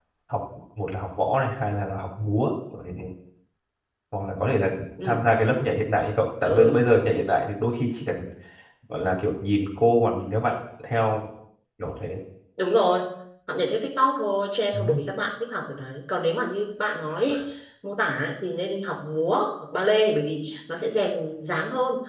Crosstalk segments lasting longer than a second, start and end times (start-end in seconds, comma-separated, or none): none